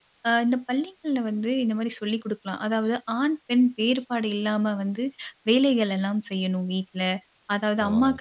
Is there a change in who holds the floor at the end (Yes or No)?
No